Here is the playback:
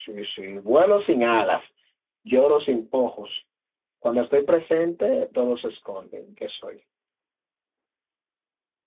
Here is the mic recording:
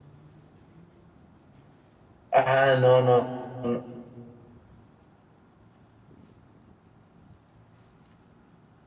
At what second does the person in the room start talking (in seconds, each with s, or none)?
2.3 s